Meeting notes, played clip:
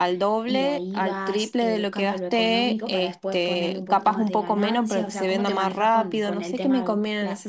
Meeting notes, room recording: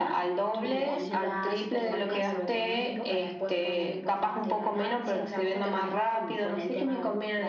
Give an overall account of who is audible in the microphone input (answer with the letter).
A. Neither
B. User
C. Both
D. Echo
C